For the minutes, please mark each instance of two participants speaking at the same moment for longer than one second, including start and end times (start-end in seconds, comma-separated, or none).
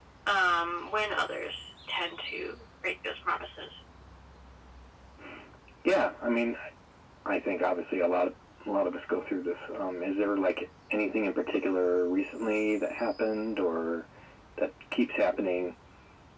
none